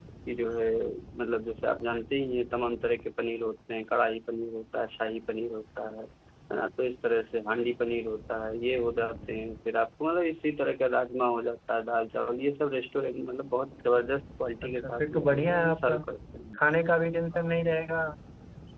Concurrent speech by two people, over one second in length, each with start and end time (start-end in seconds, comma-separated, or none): 14.6-16.0